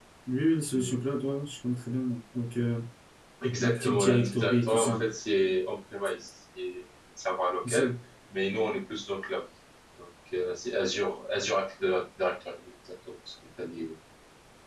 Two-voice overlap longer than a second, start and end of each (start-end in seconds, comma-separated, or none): 3.6-5.0